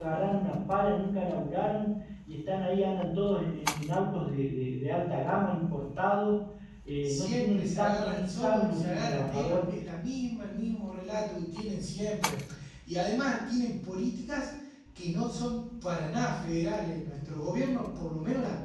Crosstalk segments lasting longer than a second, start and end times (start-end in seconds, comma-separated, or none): 7.0-9.7